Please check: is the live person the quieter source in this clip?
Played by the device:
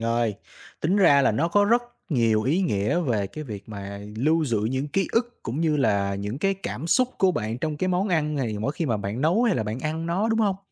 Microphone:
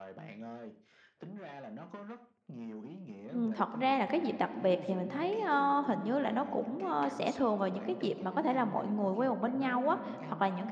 No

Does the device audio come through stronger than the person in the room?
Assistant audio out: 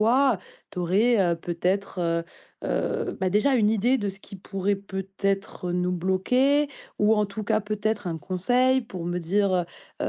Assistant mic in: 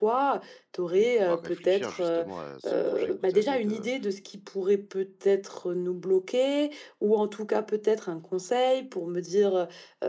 Yes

